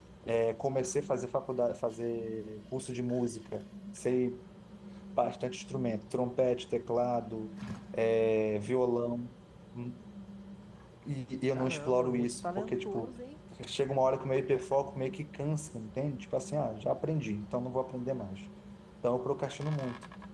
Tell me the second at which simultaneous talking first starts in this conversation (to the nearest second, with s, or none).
12 s